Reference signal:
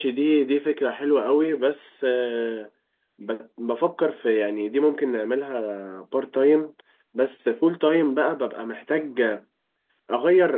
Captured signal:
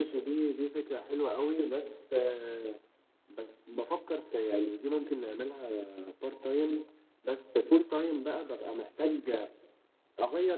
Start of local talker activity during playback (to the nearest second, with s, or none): none